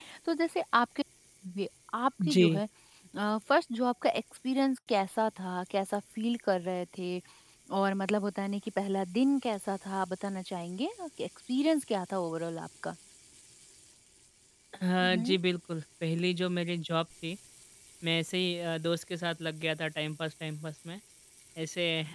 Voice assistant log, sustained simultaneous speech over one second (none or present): none